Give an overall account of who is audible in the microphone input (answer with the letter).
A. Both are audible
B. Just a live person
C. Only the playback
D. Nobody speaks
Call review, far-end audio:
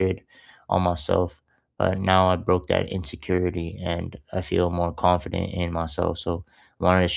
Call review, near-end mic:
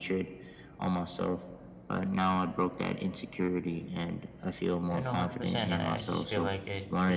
A